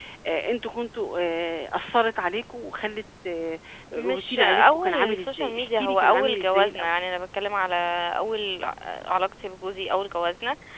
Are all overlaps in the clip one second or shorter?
No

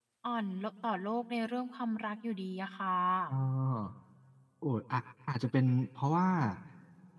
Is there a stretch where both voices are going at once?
No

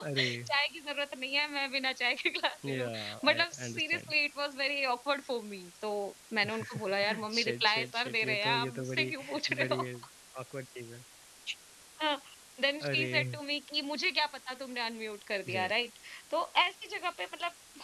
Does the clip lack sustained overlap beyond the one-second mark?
No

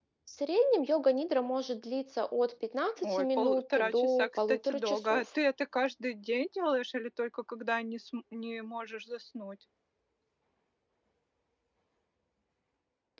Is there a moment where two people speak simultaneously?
Yes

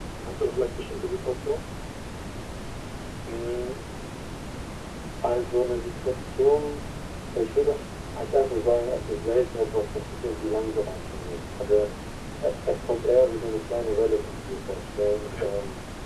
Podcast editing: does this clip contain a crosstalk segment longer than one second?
No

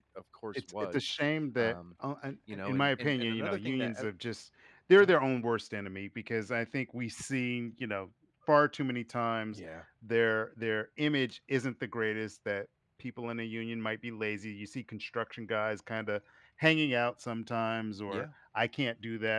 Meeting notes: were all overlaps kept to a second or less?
No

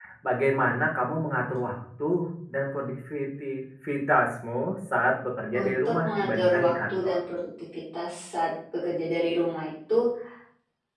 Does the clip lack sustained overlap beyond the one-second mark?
No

